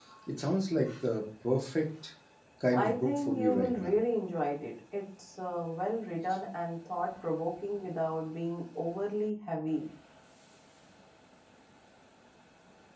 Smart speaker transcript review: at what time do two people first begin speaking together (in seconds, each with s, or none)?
2.7 s